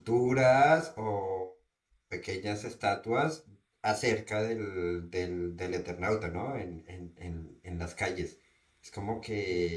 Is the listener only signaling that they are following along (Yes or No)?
Yes